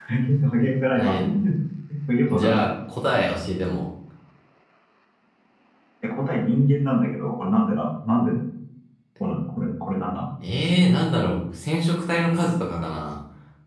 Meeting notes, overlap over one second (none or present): none